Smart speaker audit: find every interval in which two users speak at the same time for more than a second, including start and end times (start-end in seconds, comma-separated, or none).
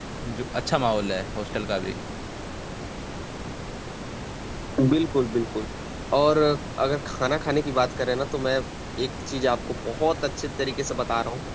none